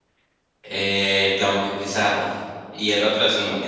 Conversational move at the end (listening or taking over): listening